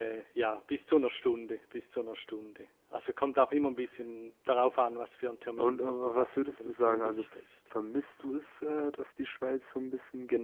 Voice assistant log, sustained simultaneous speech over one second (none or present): present